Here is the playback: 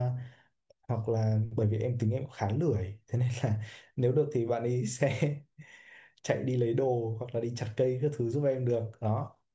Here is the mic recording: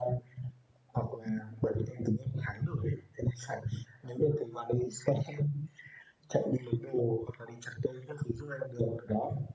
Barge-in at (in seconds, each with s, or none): none